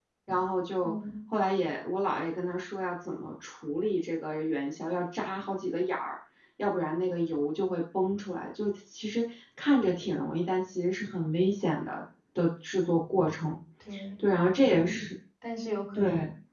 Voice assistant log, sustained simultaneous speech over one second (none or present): none